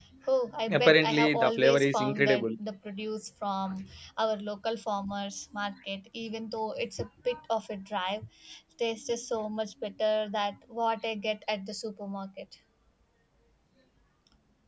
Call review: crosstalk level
present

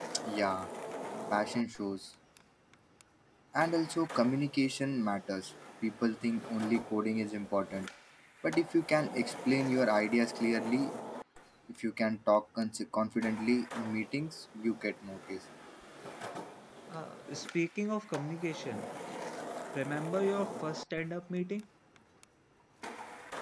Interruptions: none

